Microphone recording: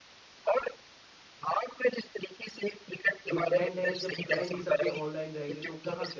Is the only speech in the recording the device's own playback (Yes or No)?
No